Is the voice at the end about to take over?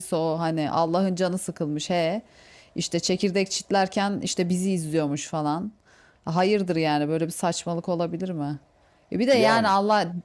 No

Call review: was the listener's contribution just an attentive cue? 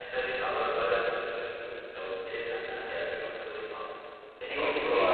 Yes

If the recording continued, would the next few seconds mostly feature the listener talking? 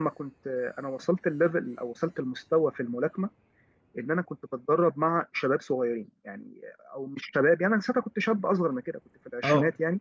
No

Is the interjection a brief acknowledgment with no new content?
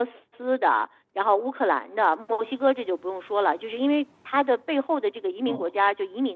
Yes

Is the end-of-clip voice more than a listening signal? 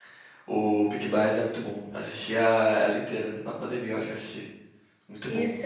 Yes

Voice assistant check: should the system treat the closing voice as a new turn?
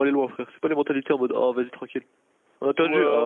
Yes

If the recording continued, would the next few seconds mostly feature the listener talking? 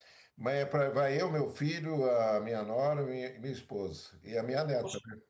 Yes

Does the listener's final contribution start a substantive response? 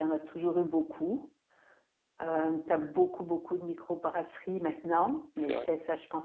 No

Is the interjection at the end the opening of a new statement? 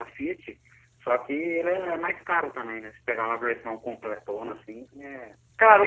Yes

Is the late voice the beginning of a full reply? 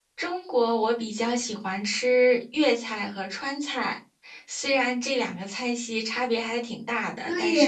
Yes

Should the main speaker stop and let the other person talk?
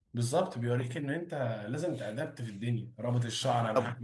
No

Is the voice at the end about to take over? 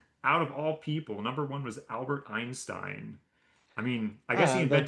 No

